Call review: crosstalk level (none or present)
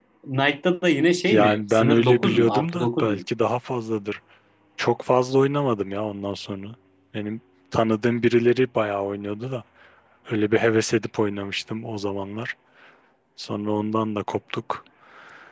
present